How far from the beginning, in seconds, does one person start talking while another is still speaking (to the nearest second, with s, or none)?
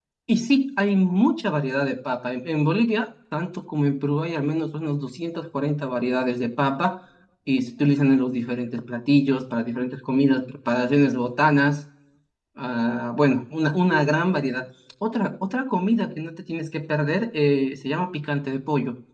none